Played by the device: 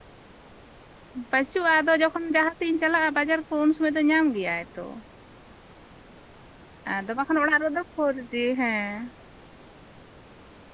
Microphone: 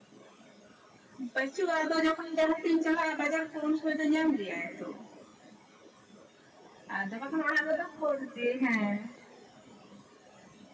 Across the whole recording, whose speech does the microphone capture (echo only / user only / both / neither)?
echo only